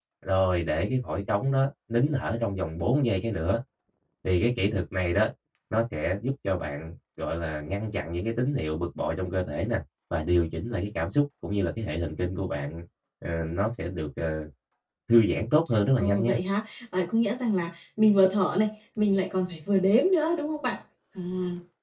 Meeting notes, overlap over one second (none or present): none